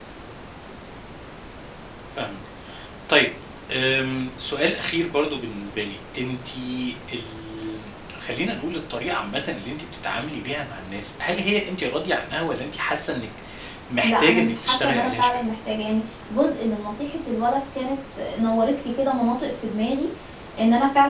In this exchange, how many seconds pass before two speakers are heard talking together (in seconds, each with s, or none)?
14.0 s